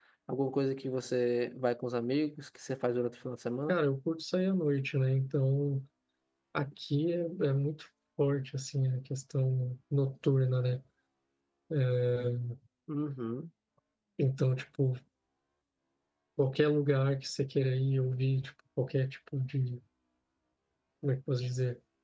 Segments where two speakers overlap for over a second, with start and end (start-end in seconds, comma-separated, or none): none